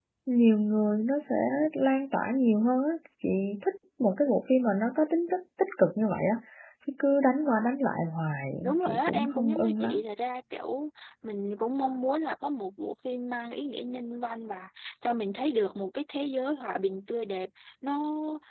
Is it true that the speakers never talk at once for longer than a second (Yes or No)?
No